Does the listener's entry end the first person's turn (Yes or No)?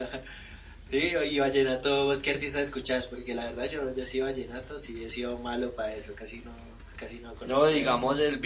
Yes